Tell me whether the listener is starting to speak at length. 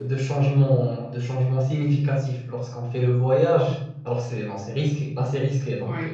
No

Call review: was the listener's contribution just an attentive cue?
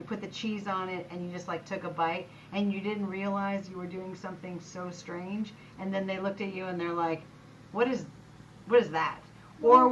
Yes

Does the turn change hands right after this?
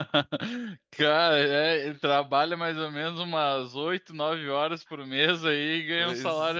Yes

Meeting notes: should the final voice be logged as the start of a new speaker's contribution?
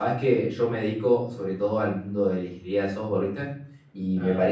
No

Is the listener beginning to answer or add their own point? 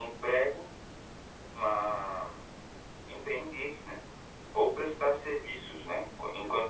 No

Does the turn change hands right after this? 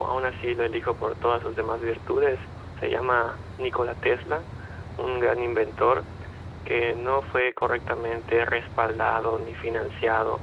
No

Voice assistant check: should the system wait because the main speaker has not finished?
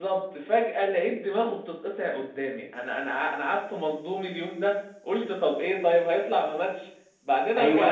No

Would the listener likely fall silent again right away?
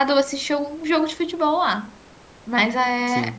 Yes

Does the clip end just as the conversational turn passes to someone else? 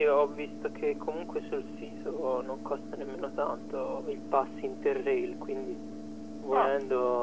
No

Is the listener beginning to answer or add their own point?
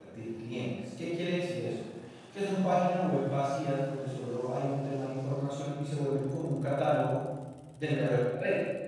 No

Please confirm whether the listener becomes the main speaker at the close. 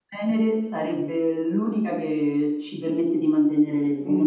Yes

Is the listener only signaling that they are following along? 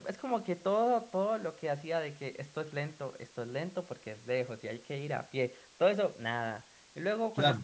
Yes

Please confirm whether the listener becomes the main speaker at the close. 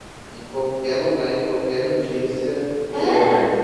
No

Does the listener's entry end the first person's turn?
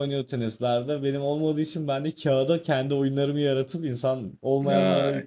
No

